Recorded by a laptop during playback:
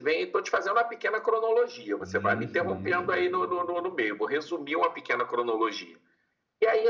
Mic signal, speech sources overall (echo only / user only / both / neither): both